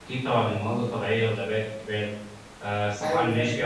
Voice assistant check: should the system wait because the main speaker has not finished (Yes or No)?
Yes